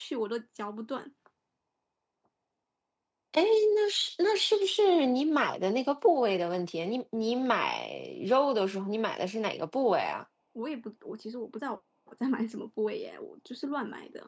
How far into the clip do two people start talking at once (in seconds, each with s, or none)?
none